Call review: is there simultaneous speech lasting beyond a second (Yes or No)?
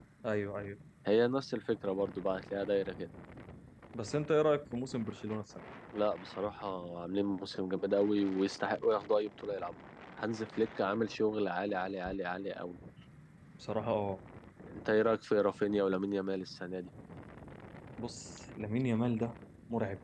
No